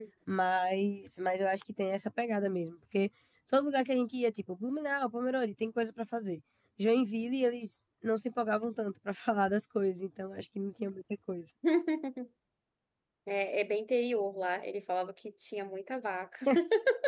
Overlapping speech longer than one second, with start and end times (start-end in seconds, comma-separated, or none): none